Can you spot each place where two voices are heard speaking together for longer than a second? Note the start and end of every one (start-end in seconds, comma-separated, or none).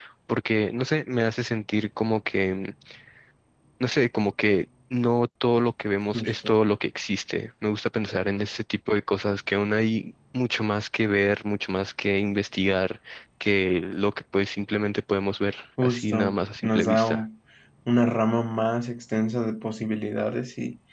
15.8-17.2